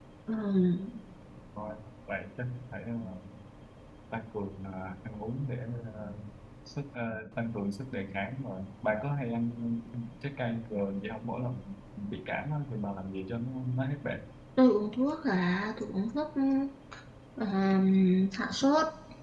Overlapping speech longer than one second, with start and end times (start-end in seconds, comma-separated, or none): none